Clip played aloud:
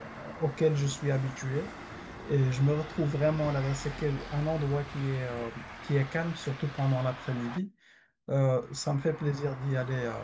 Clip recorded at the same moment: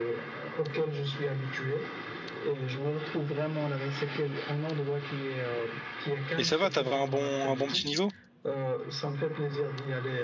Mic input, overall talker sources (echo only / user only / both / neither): both